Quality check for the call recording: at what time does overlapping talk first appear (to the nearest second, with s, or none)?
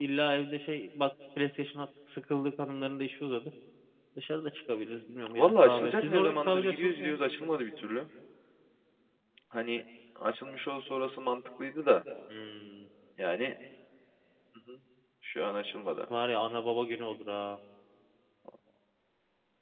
5 s